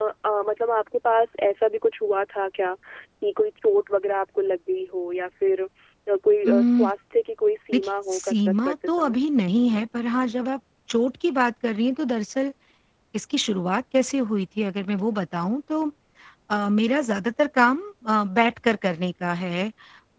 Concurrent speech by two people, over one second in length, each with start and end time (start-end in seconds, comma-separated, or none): 7.7-9.2